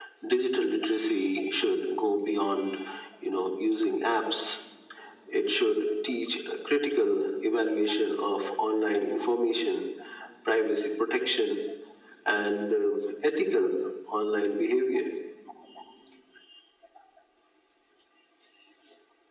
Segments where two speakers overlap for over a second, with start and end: none

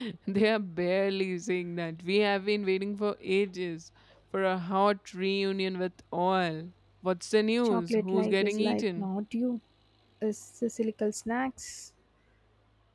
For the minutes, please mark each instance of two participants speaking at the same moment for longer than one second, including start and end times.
7.6-9.1

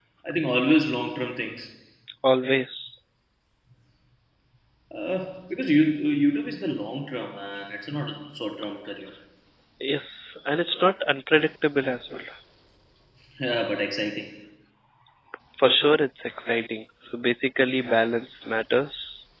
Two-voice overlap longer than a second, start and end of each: none

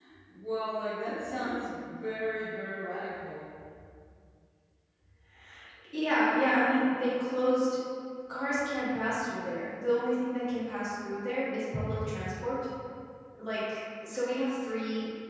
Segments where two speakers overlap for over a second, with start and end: none

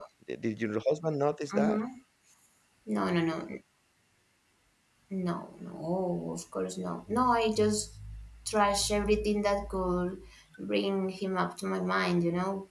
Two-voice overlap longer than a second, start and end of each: none

